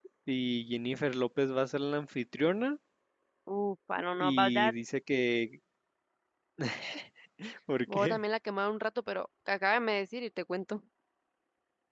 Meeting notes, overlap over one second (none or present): none